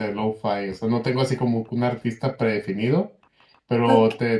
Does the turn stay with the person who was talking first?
Yes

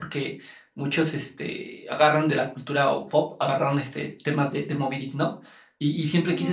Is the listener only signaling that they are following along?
Yes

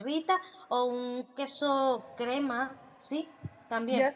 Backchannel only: No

